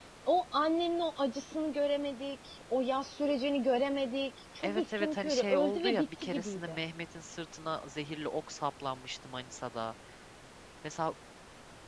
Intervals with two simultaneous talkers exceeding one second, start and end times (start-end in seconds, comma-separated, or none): 4.6-6.8